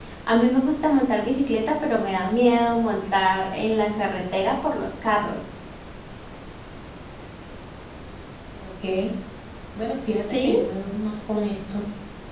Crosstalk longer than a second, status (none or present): none